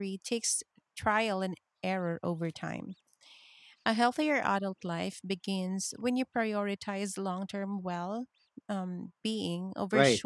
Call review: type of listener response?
taking over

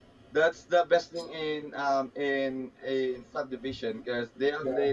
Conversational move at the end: listening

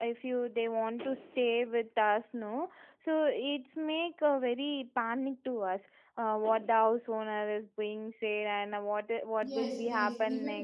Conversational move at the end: taking over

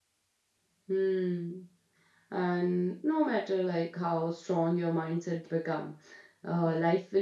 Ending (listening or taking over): listening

